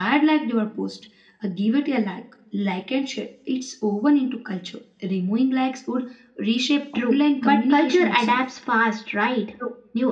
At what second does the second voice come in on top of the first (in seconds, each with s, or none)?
6.9 s